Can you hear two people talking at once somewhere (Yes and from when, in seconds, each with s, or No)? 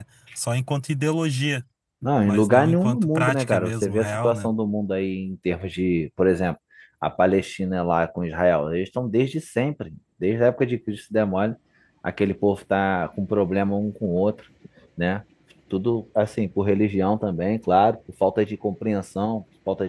Yes, from 2.3 s